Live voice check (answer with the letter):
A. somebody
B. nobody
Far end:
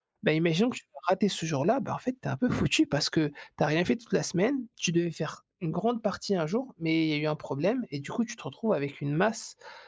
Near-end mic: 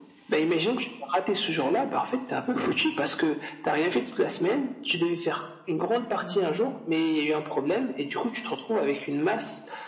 A